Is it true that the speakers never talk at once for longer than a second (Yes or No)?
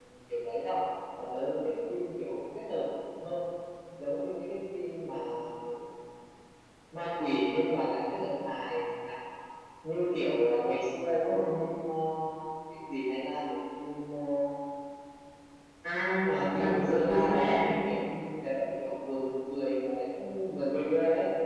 No